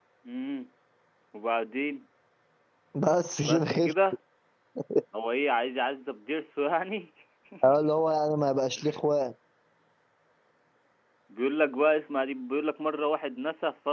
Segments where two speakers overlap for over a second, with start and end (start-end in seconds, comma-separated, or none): none